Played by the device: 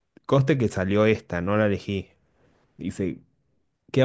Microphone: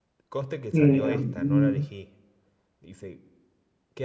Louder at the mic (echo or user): user